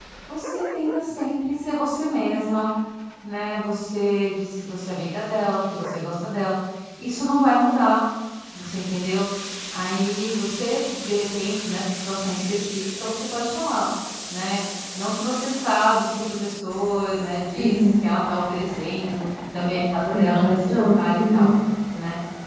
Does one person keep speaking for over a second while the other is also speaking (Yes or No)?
Yes